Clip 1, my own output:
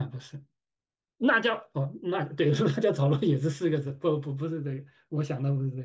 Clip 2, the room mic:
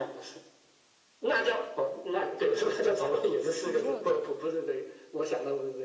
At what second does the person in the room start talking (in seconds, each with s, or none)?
3.5 s